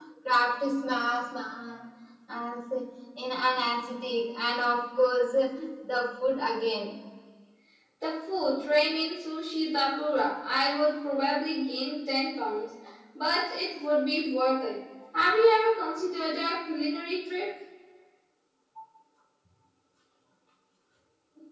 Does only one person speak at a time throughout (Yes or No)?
Yes